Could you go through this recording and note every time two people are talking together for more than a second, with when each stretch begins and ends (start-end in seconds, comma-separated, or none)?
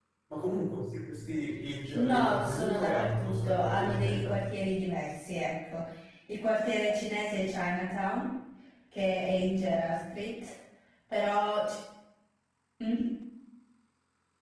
1.9-4.4